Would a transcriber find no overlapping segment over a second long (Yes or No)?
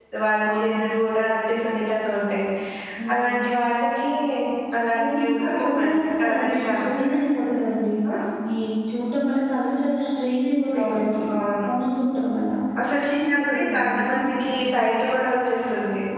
No